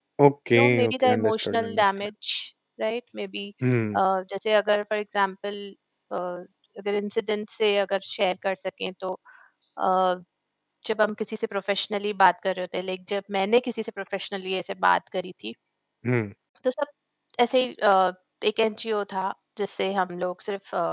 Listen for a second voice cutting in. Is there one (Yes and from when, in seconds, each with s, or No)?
Yes, from 0.6 s